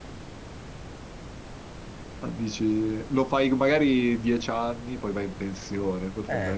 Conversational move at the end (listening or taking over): listening